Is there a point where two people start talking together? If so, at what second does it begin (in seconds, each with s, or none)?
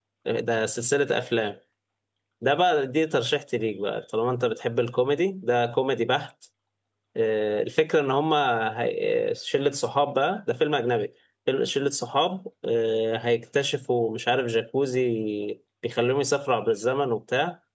none